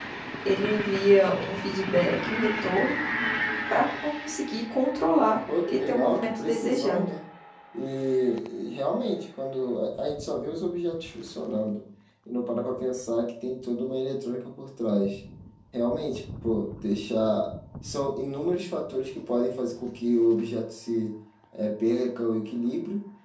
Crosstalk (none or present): present